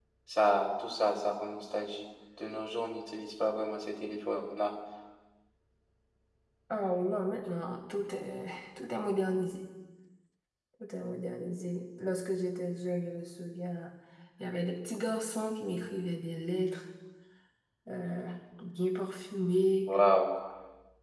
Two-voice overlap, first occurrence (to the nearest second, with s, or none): none